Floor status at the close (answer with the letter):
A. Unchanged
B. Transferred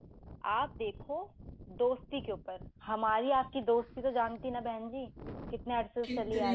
B